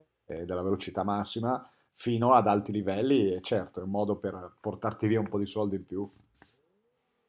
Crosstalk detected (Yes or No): No